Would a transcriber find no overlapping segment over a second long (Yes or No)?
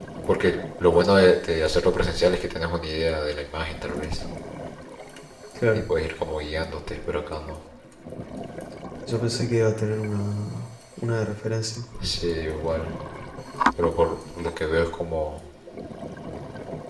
Yes